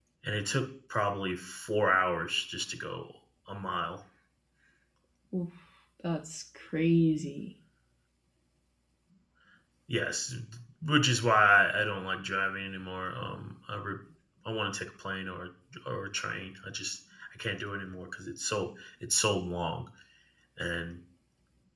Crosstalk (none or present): none